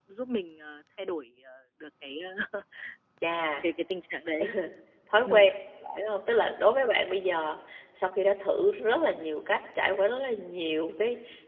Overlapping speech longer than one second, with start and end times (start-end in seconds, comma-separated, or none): none